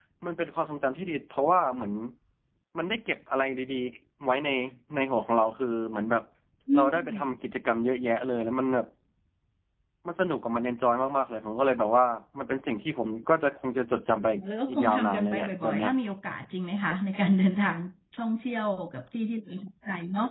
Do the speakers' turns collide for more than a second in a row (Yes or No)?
Yes